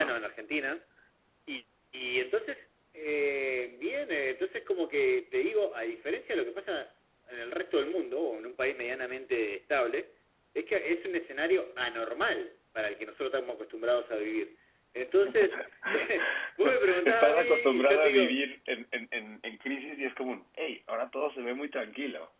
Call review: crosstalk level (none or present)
present